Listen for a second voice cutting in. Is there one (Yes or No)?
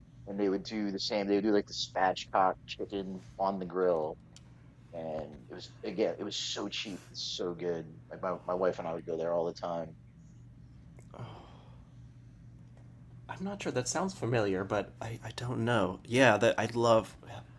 No